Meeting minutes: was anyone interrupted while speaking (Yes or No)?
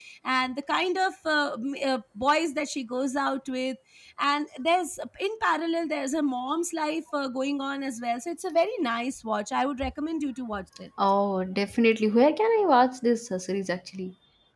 No